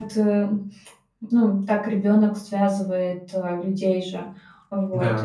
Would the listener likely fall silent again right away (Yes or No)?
Yes